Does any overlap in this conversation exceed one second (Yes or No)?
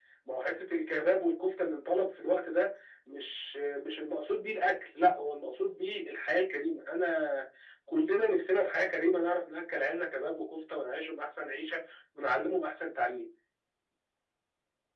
No